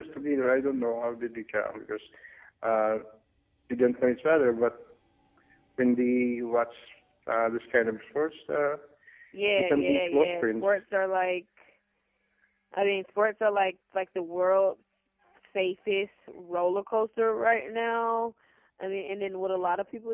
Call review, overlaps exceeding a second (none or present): present